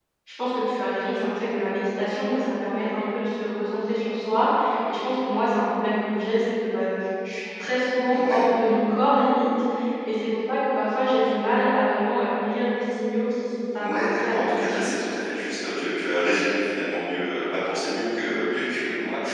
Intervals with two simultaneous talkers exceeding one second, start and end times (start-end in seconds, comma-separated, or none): 13.8-15.1